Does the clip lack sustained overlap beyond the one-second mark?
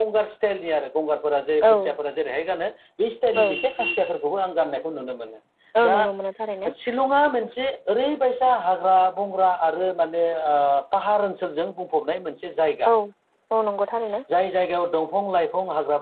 Yes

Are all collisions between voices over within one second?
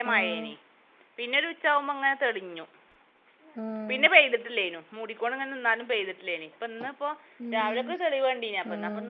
Yes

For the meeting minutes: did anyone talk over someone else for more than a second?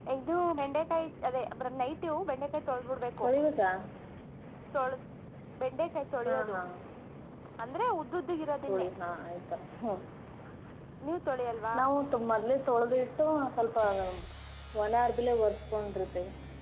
No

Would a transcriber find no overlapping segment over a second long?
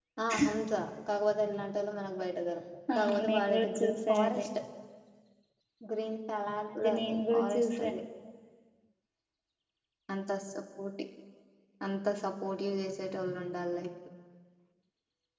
No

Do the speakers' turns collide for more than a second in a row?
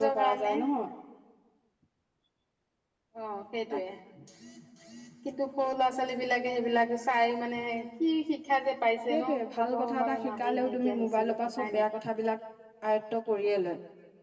Yes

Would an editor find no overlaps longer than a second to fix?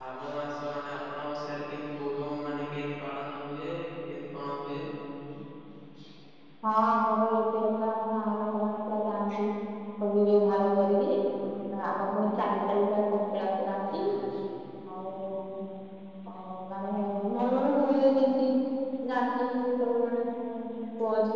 Yes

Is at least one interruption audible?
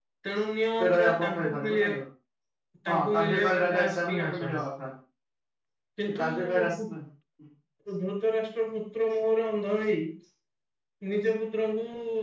Yes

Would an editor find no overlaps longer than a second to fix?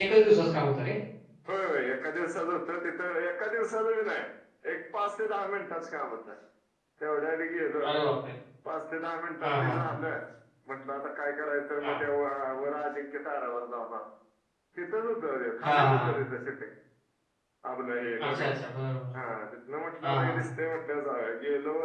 Yes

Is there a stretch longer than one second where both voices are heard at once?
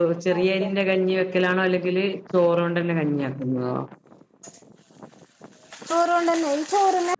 No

